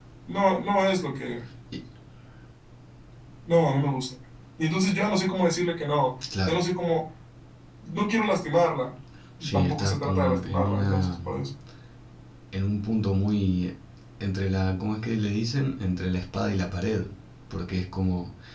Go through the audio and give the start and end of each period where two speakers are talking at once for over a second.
9.4-11.1

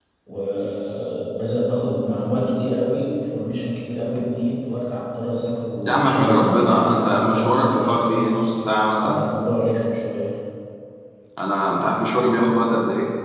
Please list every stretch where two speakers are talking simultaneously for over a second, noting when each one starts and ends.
5.9-8.3

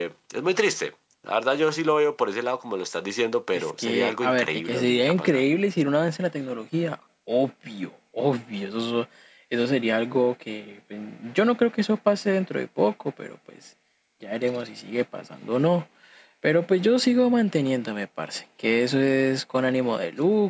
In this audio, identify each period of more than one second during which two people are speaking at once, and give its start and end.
3.5-5.4

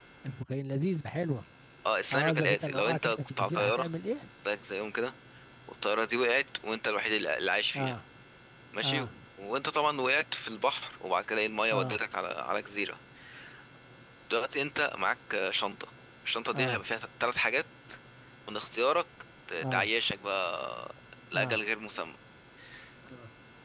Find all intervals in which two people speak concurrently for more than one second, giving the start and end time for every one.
2.1-3.9

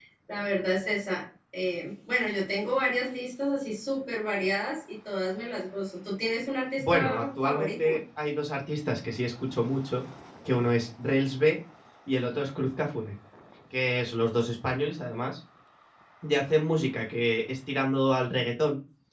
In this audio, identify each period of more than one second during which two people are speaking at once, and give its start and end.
6.8-8.0

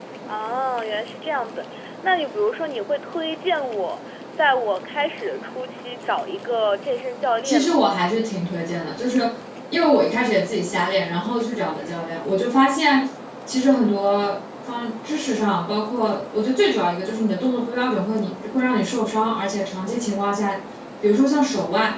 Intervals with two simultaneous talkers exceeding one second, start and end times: none

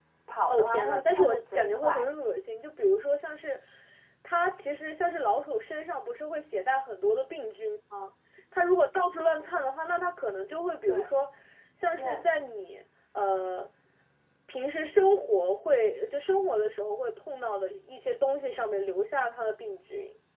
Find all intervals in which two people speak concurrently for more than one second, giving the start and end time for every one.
0.5-2.0

